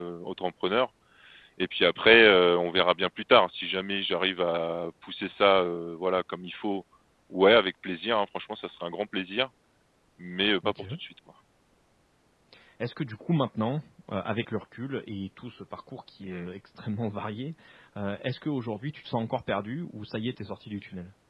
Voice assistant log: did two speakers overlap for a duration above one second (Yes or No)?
No